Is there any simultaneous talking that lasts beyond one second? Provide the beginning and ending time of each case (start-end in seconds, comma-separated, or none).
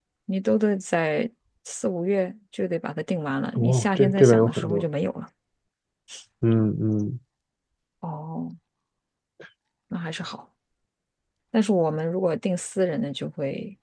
3.6-4.8